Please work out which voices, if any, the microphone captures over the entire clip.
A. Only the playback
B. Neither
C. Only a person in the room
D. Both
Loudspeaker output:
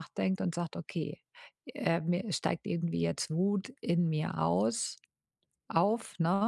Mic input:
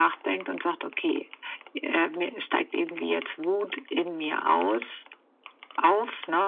A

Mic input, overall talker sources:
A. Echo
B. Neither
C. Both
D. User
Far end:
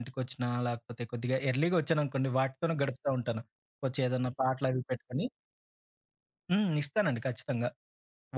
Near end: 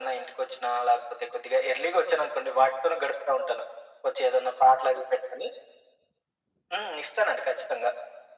A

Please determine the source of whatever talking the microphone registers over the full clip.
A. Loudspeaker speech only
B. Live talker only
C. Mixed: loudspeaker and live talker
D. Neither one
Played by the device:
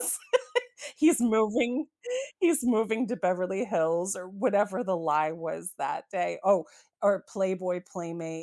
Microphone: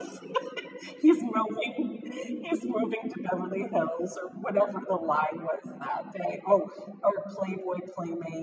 A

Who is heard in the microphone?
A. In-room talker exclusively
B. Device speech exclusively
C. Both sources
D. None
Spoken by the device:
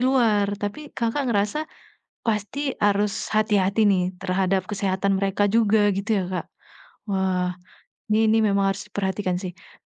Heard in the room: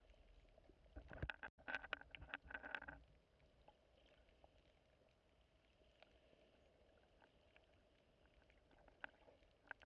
D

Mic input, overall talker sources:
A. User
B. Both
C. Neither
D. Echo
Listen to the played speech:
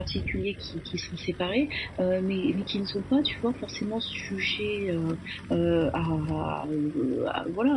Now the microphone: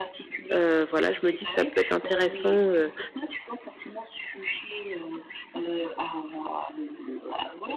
B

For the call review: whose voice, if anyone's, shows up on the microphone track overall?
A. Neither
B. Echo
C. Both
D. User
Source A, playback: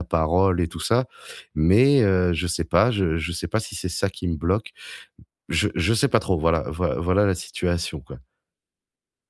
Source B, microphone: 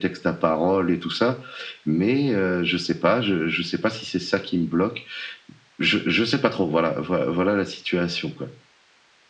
B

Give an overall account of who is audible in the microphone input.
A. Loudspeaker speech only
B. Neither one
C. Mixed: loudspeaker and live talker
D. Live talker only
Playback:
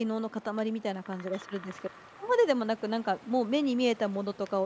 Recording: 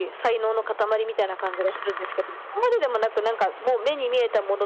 A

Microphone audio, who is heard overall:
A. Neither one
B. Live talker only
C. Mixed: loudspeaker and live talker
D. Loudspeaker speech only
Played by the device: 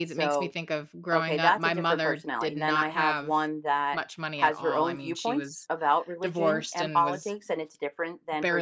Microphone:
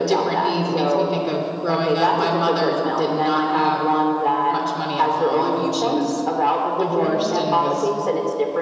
D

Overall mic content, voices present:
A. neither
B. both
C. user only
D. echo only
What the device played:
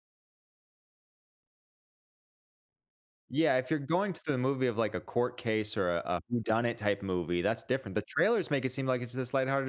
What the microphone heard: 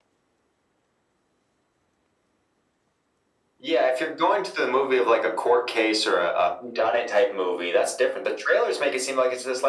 D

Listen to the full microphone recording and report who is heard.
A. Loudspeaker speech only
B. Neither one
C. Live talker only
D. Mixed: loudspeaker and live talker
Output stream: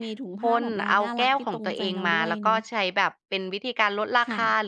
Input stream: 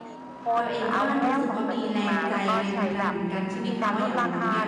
D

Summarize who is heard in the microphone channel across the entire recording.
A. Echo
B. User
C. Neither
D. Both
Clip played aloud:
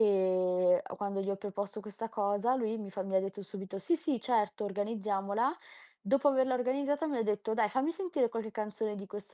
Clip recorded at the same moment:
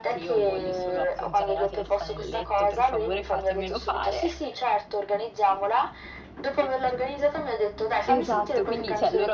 D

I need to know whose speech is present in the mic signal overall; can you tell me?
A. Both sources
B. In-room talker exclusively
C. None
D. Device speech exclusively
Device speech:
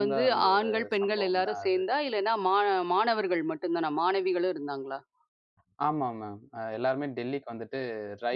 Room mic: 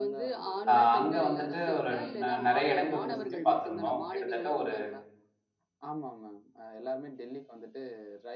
A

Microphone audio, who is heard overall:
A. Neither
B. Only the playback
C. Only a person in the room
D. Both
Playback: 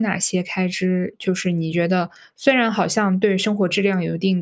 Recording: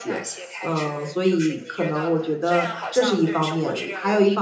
D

